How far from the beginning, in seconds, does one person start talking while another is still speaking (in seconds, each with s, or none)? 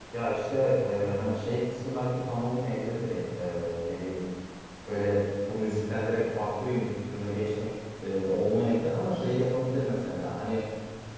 none